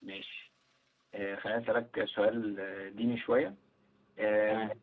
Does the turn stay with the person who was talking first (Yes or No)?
Yes